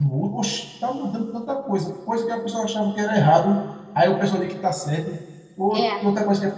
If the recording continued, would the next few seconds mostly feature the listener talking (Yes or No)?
No